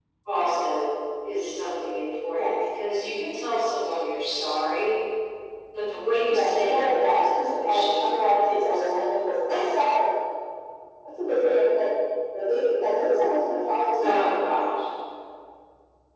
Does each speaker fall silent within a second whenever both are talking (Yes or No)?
No